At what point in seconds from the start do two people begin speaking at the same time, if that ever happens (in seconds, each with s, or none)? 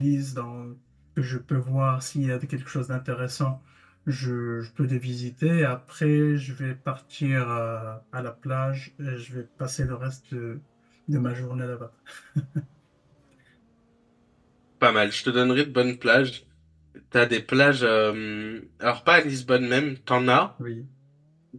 none